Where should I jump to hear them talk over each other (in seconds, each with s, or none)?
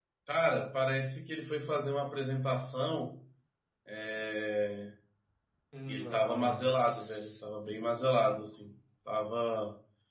5.9 s